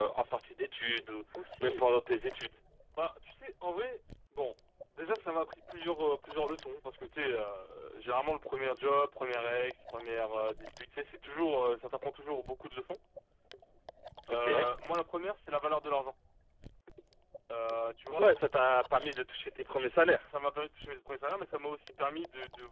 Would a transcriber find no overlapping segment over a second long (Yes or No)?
Yes